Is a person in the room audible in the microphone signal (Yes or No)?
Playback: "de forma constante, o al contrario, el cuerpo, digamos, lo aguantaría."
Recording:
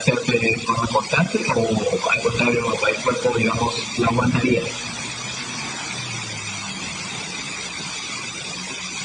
No